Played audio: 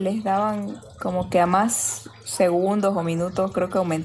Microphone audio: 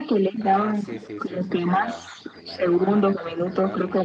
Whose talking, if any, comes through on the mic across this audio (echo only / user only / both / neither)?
both